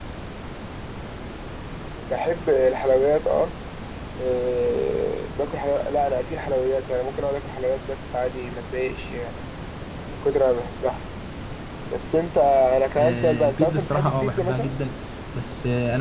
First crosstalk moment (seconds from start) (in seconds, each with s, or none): 12.9 s